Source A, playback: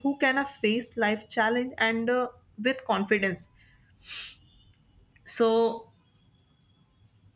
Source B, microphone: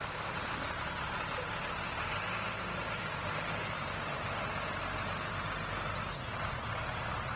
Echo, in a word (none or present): none